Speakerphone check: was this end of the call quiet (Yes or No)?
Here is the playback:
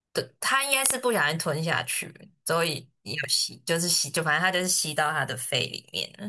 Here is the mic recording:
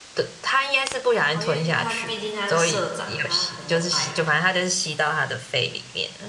No